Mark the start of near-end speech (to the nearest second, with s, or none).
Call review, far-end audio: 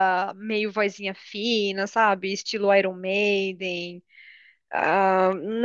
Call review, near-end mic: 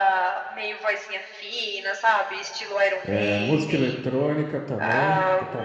3 s